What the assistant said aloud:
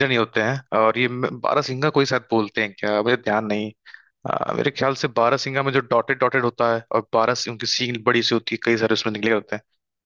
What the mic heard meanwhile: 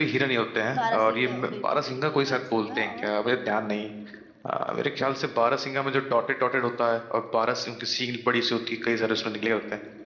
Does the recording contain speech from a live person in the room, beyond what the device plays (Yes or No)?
Yes